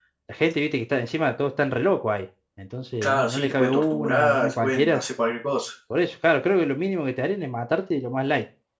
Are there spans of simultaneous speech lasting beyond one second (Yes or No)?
Yes